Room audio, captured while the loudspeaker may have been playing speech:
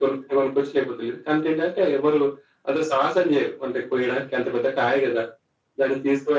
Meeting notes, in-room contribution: none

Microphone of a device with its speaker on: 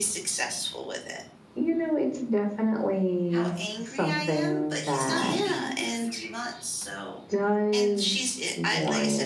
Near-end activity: present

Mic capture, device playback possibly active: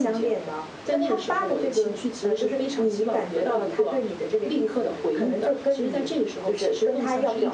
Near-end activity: none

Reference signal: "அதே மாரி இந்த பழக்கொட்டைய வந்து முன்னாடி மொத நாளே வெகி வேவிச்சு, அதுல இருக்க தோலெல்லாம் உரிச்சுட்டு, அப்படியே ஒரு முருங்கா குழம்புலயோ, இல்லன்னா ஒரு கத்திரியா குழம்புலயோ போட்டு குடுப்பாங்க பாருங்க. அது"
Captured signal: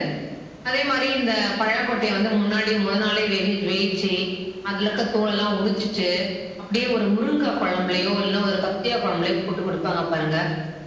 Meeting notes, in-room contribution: present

